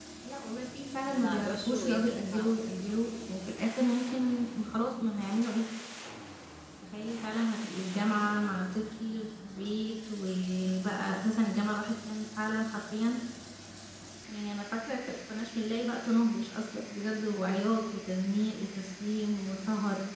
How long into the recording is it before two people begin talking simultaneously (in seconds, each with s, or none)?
1.1 s